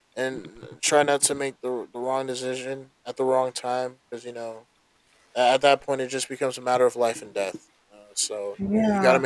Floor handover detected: No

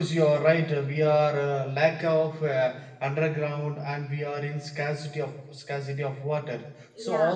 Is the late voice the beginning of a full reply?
No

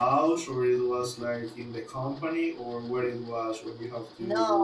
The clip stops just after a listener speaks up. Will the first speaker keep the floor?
No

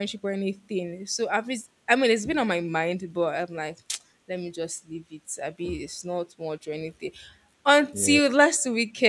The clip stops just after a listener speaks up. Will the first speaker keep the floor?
Yes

